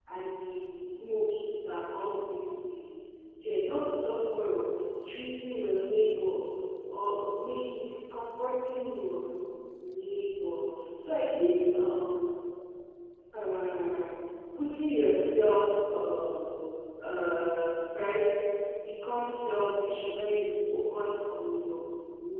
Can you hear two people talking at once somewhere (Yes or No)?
No